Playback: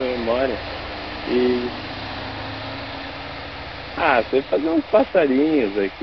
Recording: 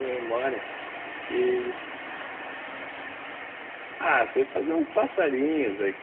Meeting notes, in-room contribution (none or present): none